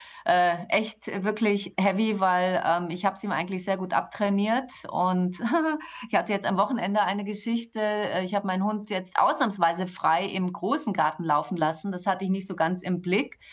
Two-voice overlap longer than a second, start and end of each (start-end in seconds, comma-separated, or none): none